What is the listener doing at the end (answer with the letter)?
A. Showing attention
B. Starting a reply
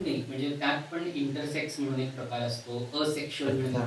A